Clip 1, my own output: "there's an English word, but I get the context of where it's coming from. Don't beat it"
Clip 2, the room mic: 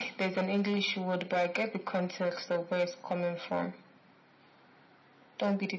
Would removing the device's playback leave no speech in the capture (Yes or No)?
Yes